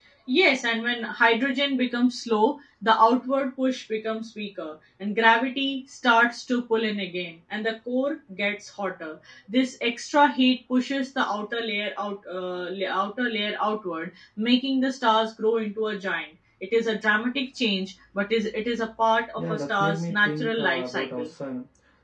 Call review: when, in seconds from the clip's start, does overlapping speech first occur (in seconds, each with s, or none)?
19.4 s